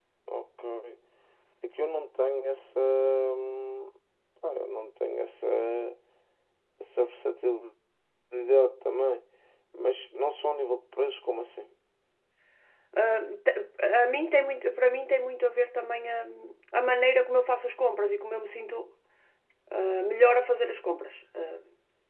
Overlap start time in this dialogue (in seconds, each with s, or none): none